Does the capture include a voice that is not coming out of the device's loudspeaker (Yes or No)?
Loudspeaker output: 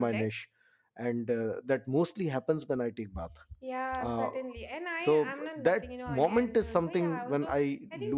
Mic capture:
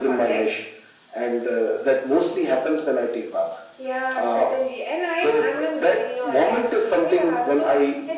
No